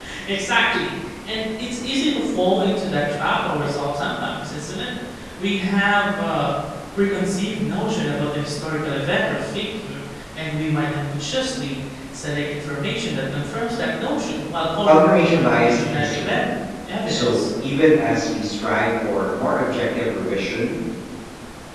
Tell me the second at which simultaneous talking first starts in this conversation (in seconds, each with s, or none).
14.8 s